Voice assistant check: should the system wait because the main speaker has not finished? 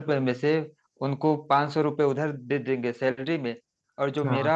Yes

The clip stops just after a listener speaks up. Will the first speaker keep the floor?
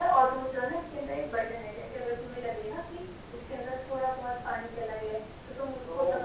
Yes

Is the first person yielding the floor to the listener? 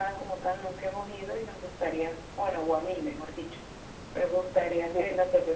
No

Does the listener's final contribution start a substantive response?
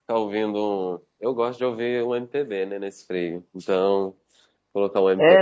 Yes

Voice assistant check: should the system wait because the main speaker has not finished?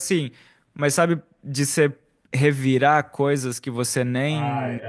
No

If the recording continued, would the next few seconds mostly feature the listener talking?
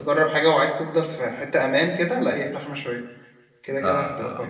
Yes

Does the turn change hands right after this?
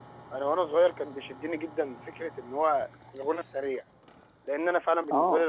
No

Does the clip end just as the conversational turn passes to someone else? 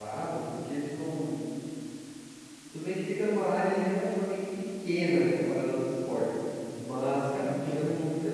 No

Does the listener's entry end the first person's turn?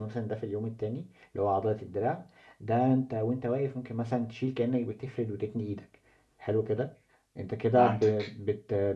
No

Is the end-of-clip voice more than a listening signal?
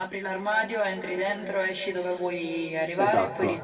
Yes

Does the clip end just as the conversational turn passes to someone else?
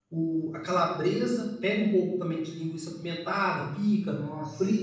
No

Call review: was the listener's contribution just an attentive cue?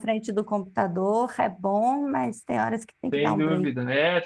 No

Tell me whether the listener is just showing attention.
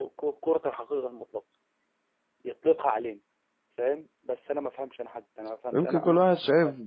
No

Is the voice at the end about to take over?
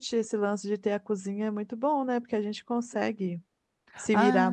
Yes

